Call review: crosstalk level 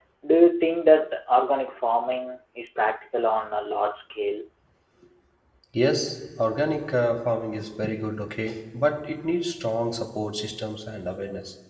none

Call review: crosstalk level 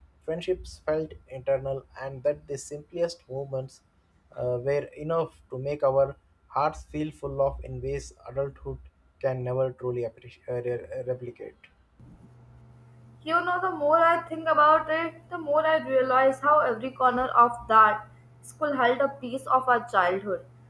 none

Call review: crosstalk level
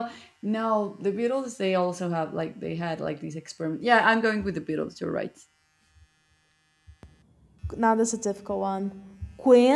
none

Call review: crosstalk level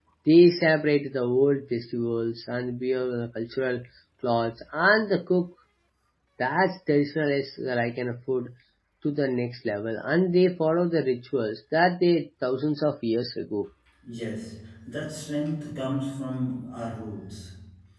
none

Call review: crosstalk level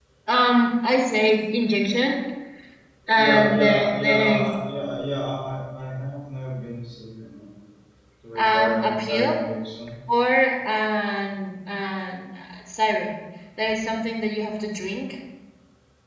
present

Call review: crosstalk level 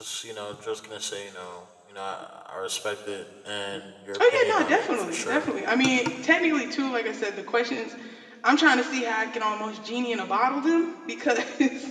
present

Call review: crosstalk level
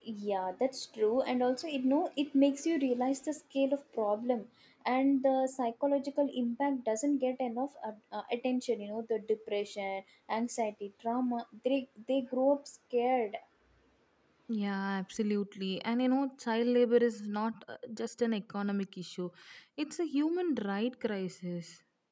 none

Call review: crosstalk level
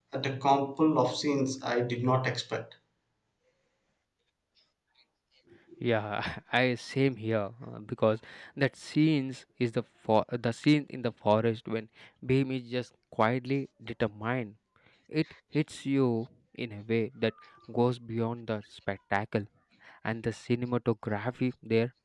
none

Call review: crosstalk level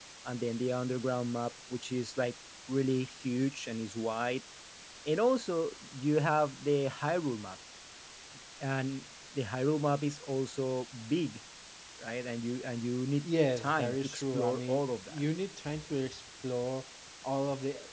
present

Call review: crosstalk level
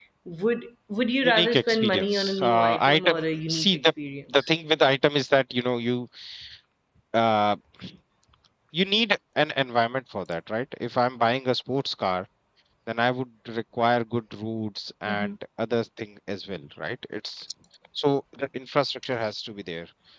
present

